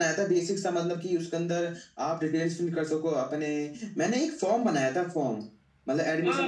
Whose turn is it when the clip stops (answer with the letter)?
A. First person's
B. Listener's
B